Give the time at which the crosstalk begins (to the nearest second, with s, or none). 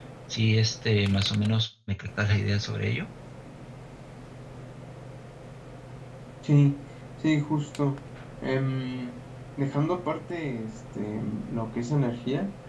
none